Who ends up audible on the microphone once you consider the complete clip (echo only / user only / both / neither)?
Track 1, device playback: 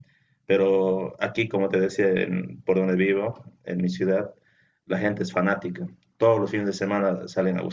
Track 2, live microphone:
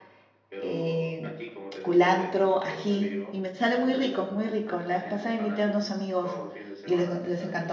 both